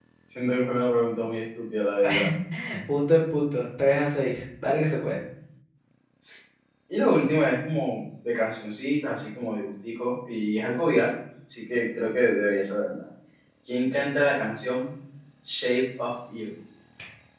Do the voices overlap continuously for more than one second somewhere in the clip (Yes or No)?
No